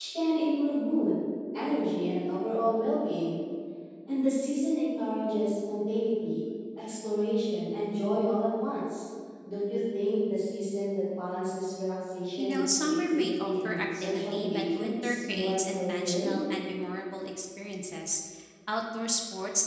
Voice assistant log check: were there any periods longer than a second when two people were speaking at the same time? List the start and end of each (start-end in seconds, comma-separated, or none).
12.4-16.4